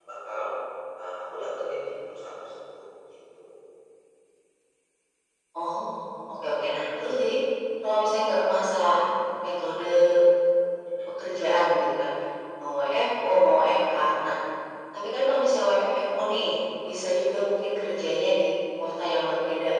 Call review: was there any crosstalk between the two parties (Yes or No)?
No